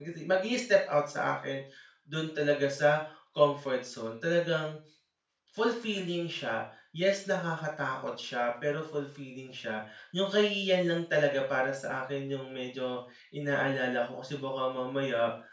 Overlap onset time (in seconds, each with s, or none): none